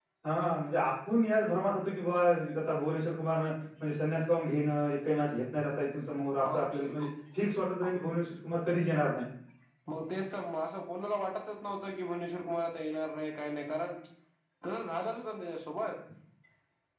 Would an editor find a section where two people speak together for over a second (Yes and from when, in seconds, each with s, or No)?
No